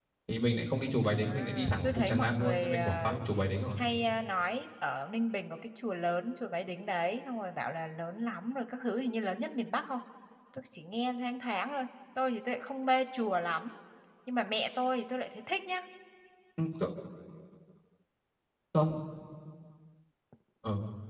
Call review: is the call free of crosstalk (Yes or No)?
No